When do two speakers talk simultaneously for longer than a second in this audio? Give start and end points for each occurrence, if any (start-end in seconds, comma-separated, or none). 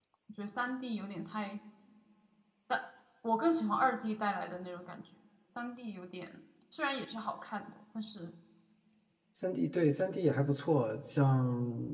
none